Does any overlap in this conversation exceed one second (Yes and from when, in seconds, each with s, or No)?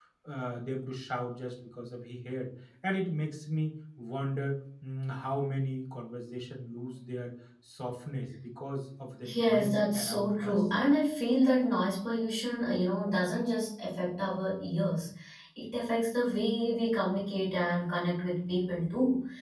Yes, from 9.2 s